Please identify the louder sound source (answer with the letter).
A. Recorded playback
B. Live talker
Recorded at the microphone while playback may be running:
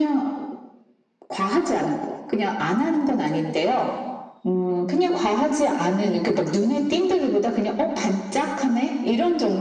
A